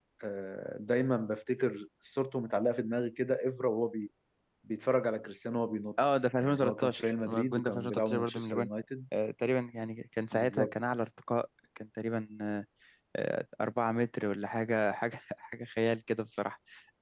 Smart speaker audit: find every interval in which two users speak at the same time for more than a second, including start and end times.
6.4-8.7

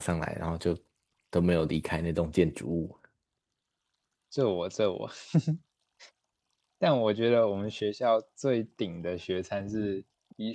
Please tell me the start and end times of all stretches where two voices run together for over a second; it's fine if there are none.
none

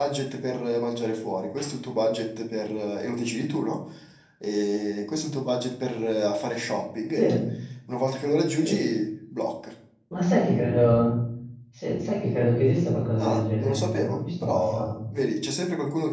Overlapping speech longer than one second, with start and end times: 13.2-14.9

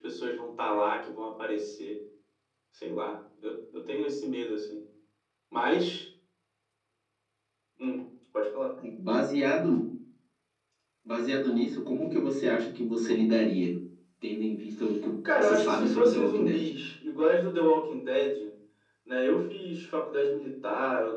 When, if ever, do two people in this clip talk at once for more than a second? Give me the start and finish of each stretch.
15.3-16.6

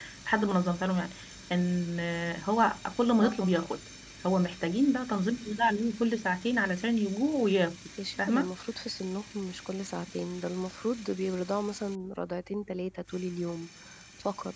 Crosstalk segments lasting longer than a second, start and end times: none

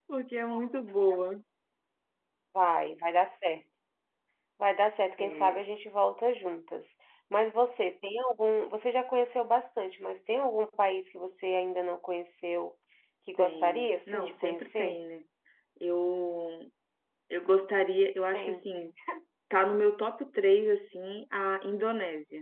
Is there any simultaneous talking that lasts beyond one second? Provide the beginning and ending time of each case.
13.4-15.0

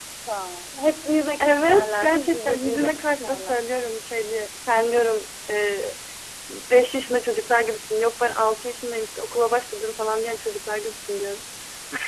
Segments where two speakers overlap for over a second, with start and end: 1.4-3.6

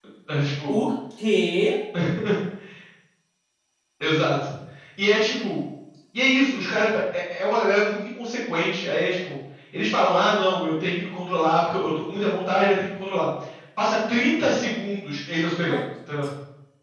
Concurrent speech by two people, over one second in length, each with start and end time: none

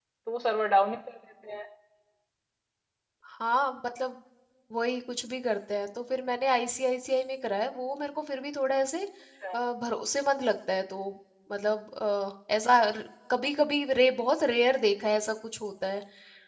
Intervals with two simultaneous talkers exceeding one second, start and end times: none

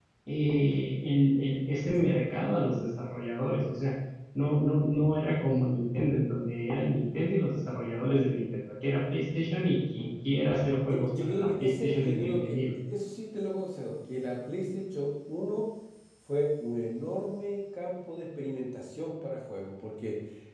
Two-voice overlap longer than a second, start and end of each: 10.9-12.6

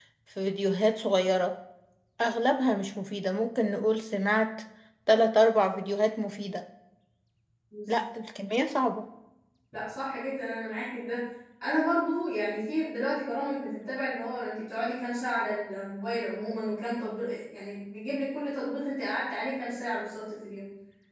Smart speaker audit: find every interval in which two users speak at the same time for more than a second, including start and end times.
none

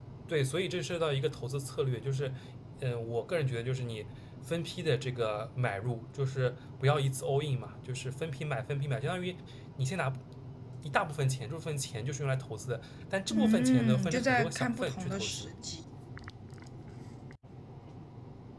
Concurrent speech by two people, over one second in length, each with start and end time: 13.3-15.5

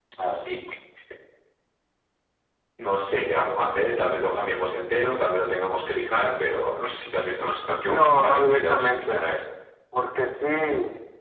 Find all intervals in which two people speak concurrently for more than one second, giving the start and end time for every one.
7.9-9.2

